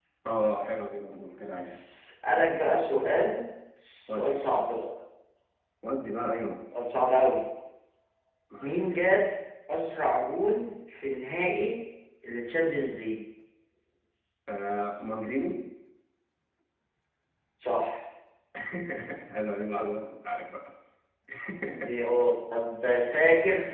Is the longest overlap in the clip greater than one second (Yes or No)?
No